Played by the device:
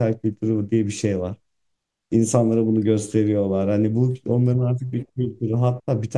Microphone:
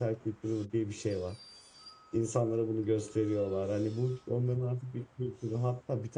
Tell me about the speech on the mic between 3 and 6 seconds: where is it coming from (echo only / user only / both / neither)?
echo only